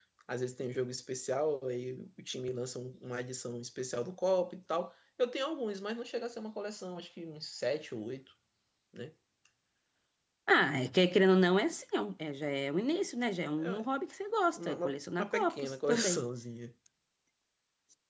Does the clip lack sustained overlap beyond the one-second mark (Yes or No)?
No